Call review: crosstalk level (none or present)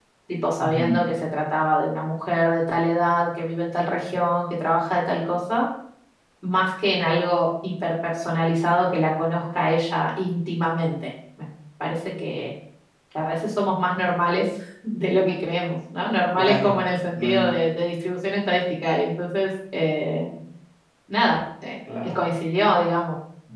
present